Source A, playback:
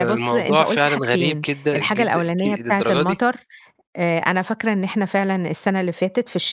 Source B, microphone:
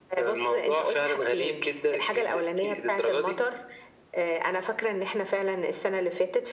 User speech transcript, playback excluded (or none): none